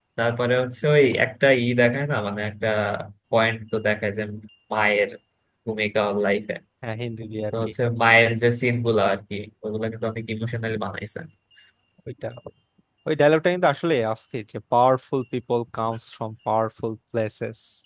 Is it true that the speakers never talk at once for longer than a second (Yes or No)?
Yes